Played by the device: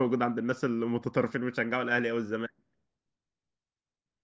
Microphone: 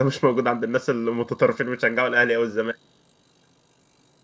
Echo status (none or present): present